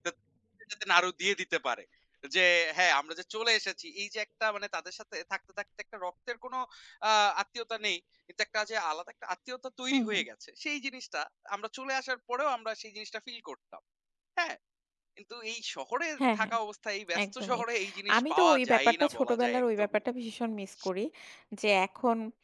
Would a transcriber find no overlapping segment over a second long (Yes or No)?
No